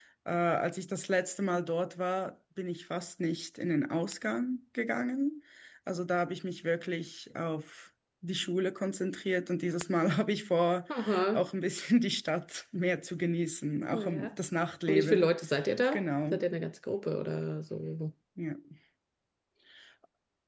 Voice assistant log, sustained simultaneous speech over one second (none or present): none